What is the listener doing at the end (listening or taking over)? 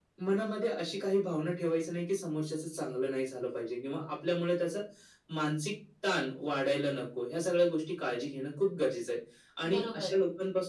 listening